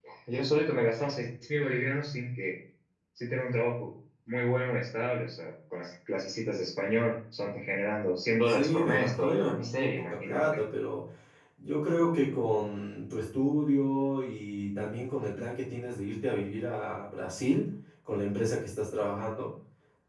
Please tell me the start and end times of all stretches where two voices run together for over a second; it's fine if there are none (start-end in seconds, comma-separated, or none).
8.5-10.5